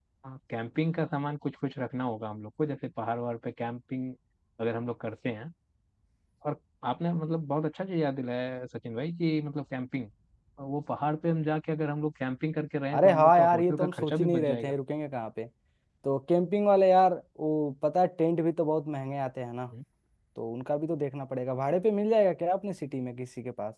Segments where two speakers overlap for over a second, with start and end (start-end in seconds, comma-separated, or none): 12.9-14.7